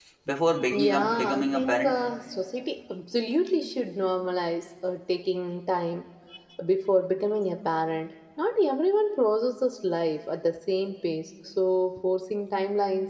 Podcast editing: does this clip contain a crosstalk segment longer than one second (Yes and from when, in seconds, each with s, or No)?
Yes, from 0.7 s